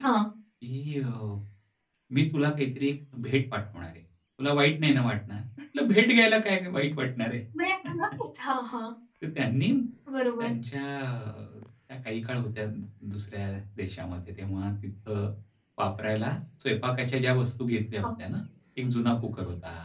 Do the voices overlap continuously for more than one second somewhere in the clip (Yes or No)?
No